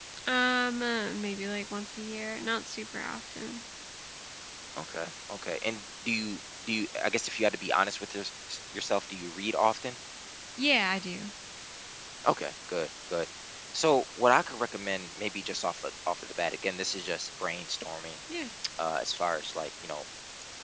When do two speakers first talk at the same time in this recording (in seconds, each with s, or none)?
none